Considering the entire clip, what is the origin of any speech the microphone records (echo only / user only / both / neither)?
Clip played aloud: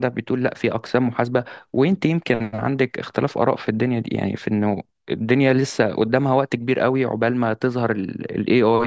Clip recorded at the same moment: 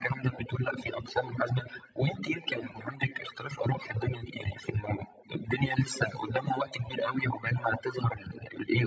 echo only